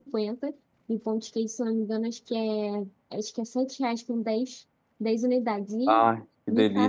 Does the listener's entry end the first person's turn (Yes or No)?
Yes